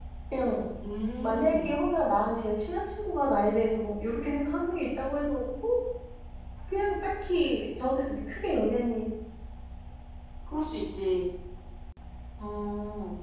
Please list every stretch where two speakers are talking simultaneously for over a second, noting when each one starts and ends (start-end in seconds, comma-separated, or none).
none